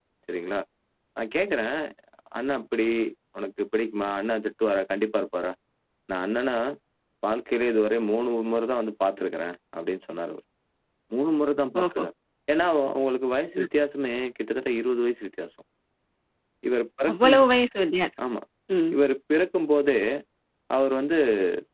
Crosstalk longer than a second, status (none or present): none